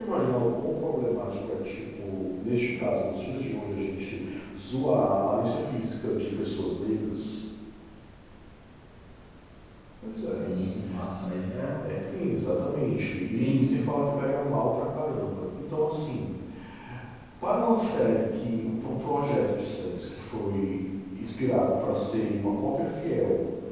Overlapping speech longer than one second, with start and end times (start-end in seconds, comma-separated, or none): none